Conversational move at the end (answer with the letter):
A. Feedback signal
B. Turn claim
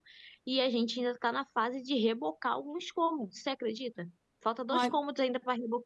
A